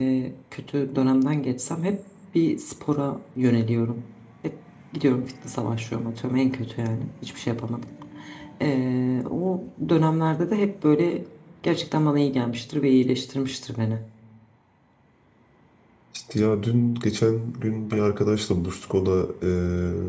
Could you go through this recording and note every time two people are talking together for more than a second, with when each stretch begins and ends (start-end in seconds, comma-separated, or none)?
none